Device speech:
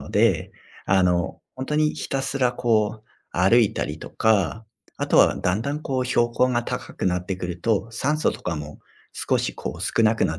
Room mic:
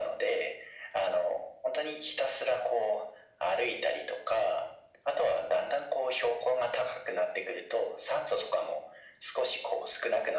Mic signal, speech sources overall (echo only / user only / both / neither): echo only